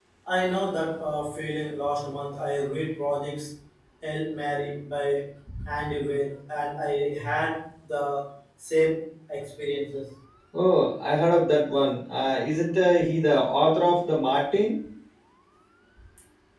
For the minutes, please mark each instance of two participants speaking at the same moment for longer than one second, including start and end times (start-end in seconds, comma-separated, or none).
none